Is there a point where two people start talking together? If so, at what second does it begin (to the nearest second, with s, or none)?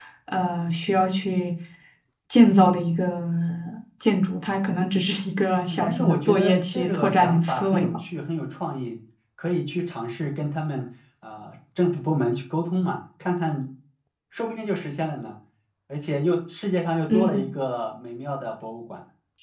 6 s